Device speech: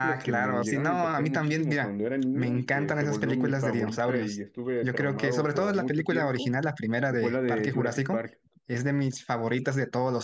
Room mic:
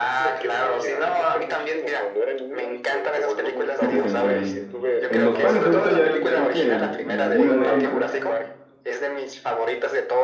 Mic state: both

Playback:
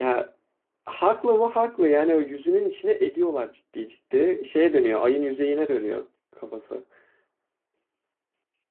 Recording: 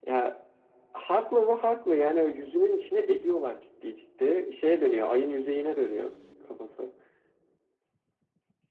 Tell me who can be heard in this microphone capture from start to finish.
echo only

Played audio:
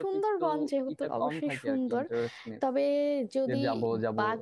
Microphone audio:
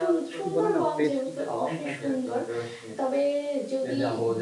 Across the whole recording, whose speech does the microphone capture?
both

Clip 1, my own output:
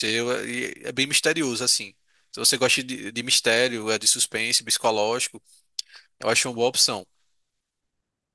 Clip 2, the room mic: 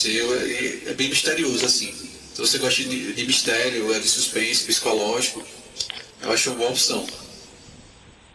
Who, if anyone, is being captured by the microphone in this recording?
echo only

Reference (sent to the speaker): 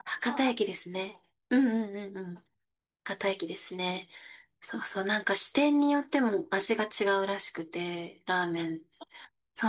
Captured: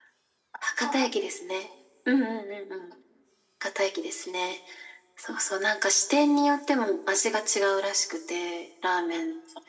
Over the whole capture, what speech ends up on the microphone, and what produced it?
echo only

